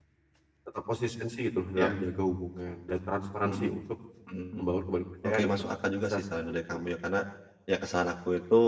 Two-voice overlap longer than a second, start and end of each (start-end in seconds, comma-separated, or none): 5.2-6.9